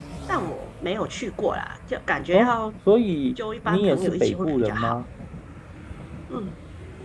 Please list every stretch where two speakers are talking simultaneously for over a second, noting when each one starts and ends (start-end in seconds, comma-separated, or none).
3.6-5.0